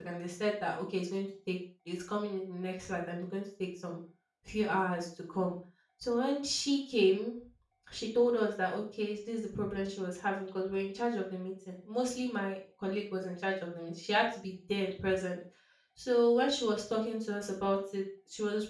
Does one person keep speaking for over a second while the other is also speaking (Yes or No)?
No